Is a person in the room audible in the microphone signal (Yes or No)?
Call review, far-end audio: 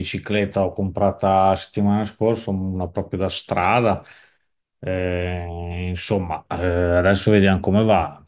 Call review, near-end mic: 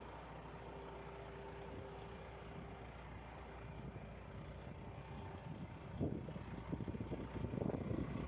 No